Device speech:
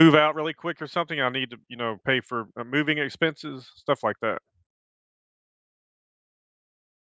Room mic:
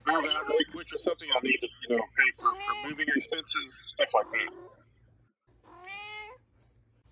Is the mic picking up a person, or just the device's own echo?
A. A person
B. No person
B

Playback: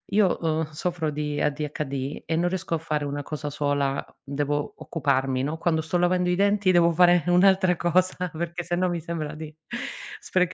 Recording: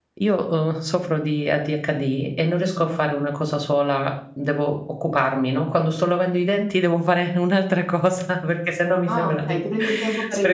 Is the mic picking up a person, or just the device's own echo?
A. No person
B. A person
B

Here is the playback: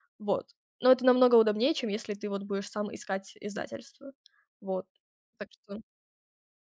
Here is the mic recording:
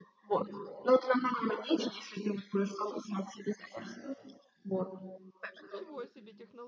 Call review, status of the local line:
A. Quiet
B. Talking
B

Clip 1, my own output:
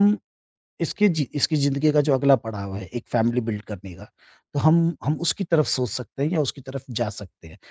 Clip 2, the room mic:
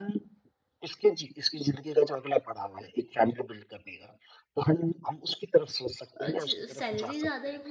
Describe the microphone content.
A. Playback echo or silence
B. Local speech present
B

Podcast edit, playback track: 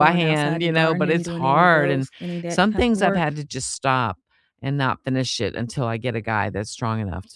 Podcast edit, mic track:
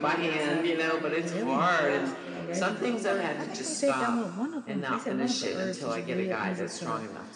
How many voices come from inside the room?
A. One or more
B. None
A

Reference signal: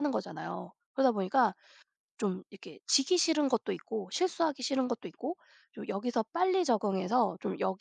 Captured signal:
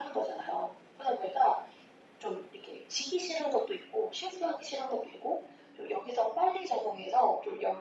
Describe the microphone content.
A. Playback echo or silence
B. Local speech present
A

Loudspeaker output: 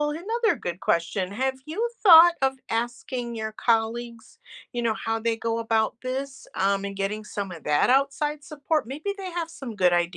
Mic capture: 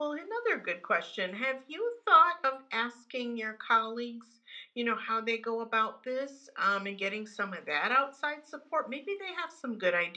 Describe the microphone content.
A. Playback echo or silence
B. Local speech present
A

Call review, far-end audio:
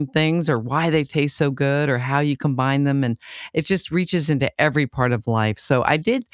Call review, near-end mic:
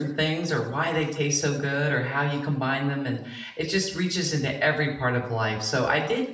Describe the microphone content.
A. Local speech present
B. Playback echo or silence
B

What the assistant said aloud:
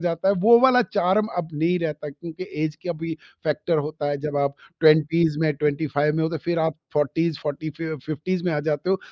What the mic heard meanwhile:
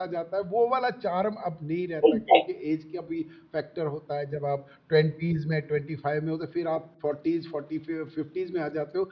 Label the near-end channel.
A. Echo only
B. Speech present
B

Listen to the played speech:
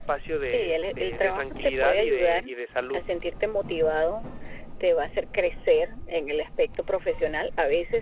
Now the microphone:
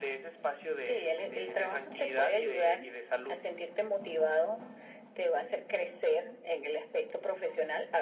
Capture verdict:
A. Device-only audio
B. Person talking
A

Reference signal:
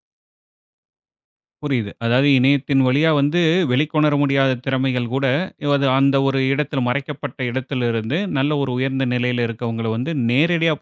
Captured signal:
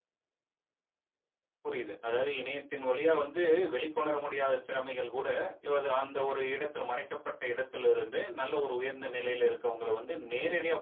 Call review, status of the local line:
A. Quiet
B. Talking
A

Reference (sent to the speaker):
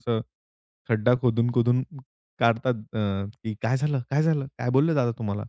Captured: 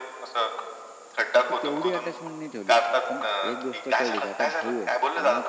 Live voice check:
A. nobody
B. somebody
B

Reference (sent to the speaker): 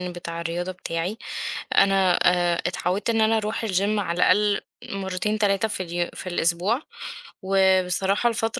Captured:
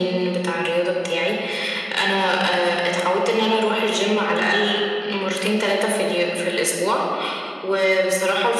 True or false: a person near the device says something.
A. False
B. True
A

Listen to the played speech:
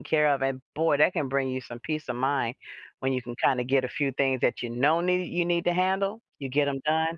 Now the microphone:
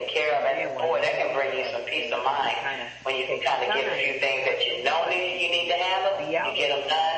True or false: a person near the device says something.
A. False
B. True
B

